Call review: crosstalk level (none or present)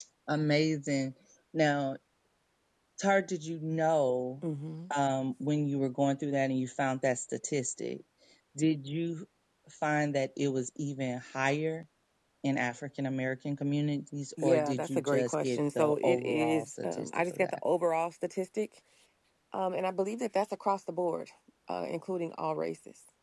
present